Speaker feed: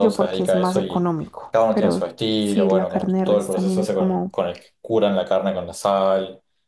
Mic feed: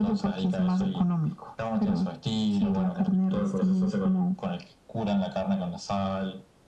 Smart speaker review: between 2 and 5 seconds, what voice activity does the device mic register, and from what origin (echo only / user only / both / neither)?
echo only